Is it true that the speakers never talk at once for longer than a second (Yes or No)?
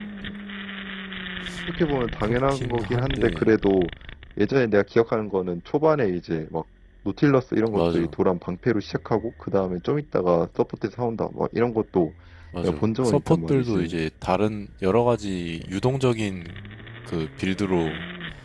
No